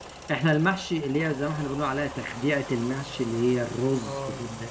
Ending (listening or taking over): listening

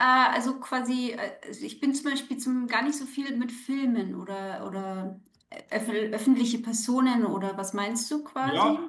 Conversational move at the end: taking over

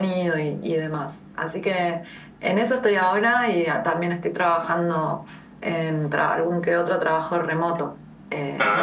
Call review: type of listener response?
listening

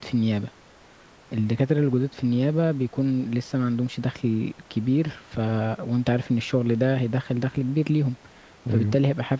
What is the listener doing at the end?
listening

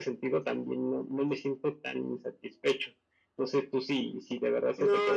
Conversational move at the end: taking over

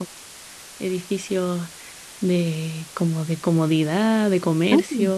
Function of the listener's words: taking over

